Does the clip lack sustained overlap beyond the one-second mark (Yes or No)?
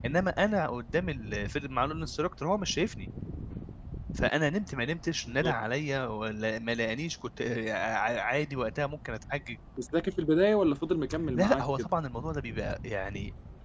Yes